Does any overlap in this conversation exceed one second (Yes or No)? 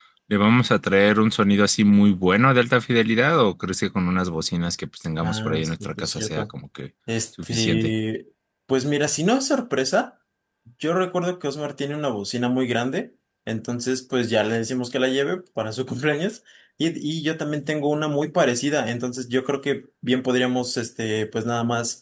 Yes